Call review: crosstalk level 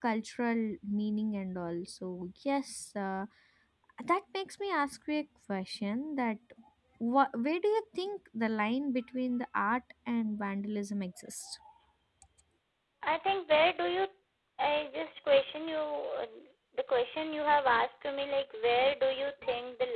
none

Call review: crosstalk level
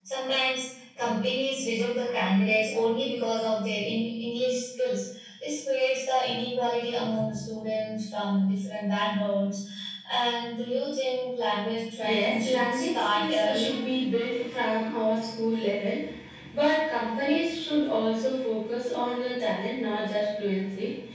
present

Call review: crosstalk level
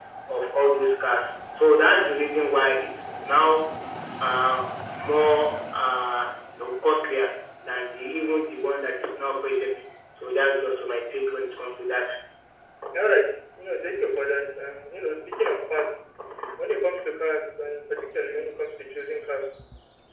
none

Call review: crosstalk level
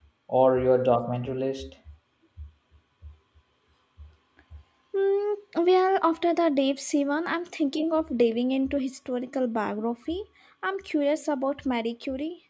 none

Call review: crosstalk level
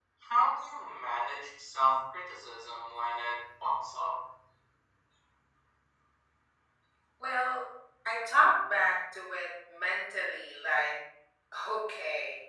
none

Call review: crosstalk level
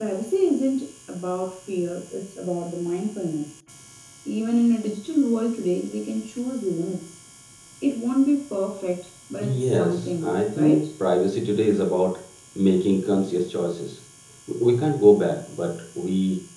present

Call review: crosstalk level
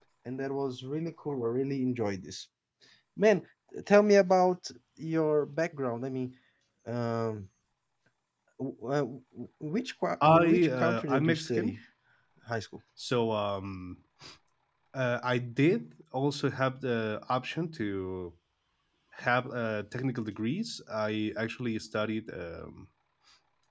present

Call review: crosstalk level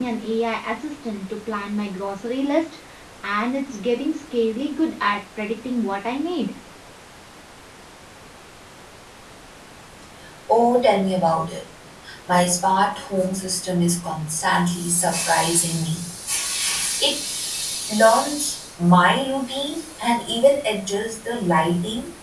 none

